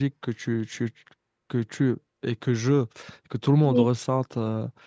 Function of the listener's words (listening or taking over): listening